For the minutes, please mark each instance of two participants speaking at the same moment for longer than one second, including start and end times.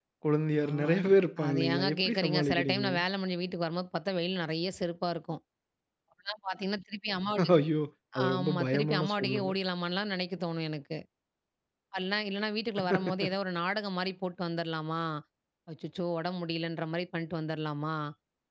1.5-2.9, 8.3-9.6

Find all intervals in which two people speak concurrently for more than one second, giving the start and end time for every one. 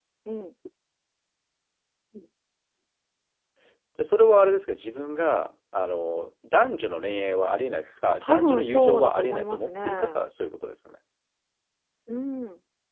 8.1-10.2

